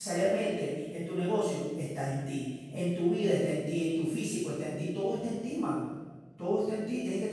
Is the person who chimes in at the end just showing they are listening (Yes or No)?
Yes